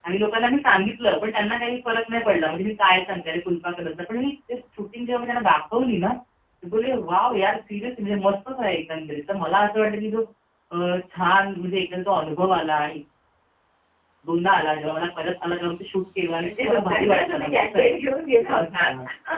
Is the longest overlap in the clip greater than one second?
Yes, from 16.4 s

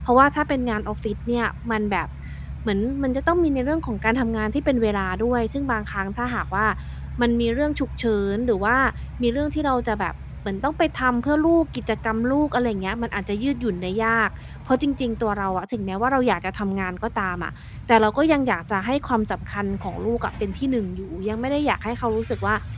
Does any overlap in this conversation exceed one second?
No

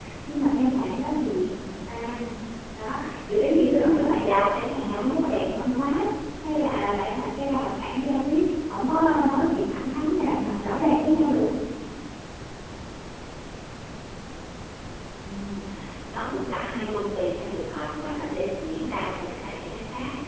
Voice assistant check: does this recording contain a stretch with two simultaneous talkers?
Yes, from 3.8 s

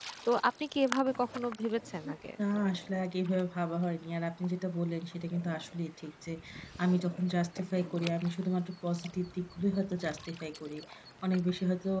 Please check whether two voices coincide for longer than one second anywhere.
No

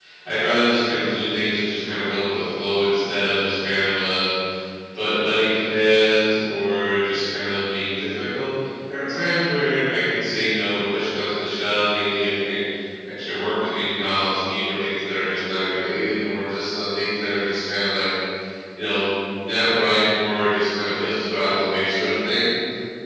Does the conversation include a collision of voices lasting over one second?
No

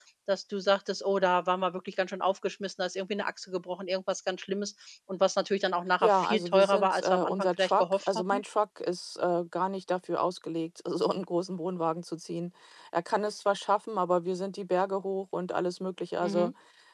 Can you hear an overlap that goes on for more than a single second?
Yes, from 6.0 s

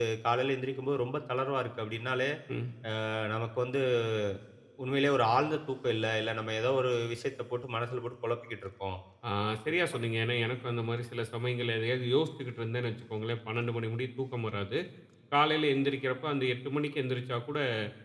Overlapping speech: No

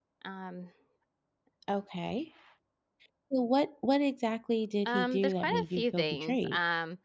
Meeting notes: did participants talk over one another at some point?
Yes, from 4.8 s

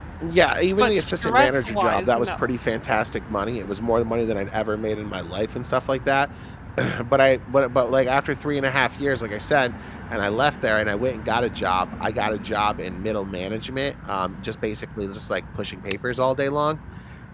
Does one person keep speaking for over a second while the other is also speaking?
Yes, from 0.8 s

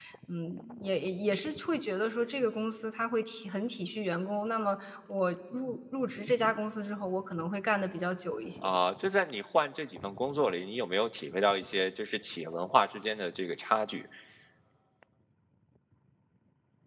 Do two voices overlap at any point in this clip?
No

